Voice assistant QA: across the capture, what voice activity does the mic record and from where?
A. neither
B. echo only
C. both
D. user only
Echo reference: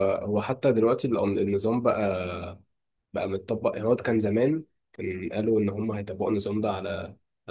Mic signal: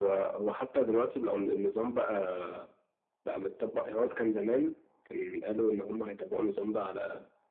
B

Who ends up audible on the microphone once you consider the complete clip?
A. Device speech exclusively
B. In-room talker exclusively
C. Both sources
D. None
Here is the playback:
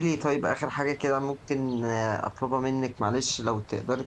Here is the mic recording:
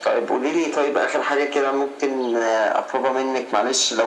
A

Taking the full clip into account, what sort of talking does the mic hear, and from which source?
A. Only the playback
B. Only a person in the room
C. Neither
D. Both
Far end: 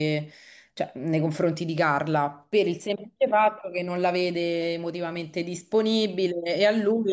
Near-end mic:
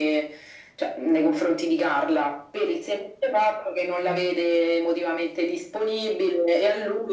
D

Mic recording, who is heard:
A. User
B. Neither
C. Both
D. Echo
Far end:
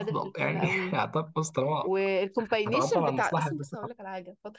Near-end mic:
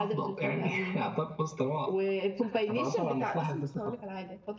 D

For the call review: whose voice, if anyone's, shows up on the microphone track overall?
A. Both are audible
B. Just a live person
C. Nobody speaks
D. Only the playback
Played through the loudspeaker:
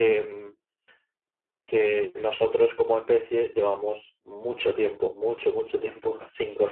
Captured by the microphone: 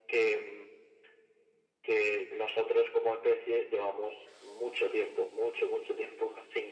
D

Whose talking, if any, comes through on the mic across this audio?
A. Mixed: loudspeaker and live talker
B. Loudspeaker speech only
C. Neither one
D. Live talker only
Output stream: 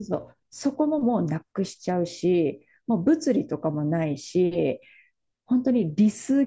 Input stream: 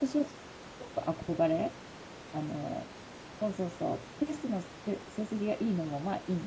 D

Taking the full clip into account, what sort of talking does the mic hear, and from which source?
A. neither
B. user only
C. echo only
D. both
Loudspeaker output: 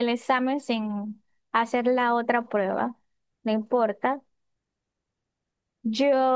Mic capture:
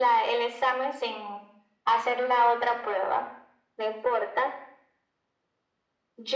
C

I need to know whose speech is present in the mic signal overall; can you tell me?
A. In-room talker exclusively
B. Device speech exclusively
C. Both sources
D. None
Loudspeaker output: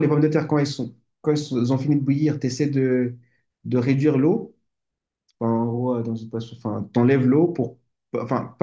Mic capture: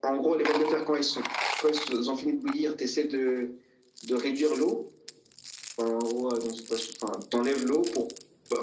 B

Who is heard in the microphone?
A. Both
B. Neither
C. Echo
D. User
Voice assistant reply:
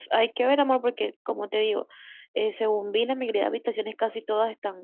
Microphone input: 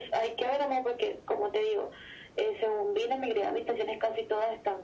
C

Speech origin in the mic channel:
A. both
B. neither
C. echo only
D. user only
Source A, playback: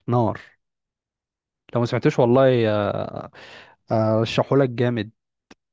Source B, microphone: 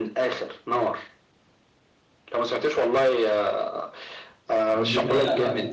A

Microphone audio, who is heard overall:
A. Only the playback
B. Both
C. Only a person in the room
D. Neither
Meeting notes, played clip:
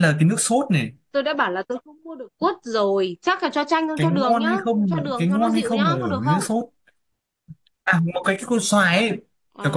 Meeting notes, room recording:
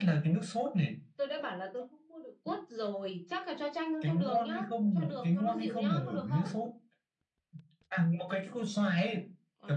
A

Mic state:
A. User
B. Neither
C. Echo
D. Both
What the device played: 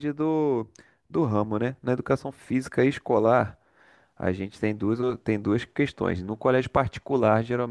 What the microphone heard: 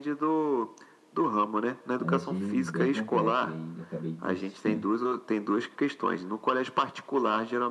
D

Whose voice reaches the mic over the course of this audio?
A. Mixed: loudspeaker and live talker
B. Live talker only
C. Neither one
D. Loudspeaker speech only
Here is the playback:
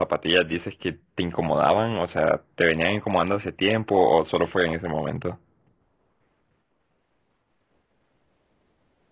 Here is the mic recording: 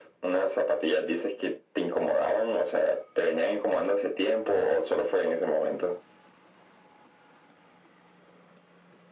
D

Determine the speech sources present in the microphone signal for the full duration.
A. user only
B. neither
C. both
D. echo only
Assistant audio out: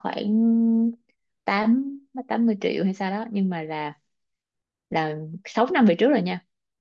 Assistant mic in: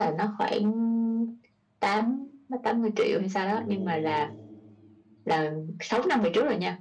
C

